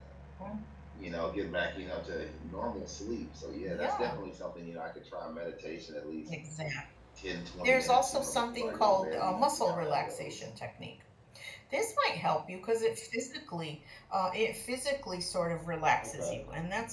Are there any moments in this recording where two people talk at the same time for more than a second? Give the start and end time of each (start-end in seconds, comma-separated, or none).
7.6-10.4